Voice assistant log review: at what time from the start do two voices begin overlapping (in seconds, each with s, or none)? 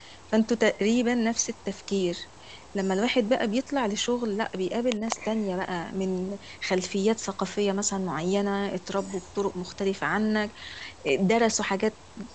none